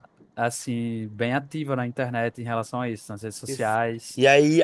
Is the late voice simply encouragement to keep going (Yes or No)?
No